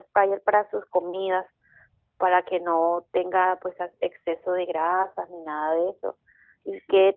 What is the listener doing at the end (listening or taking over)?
listening